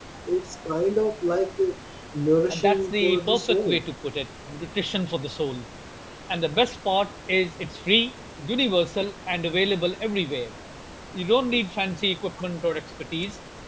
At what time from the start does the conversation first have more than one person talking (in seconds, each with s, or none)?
2.5 s